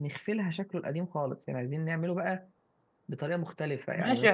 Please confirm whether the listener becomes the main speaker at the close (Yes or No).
Yes